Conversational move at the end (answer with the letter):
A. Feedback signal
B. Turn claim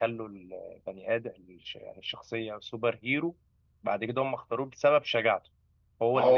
A